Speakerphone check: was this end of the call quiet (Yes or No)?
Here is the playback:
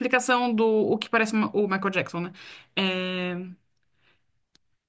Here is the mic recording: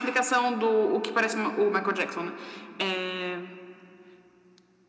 Yes